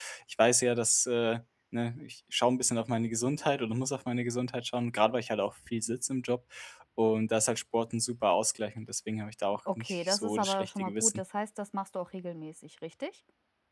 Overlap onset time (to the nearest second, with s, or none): 10 s